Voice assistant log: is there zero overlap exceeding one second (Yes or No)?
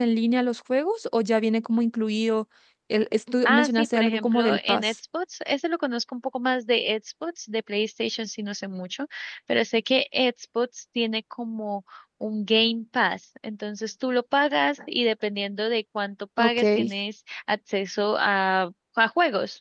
No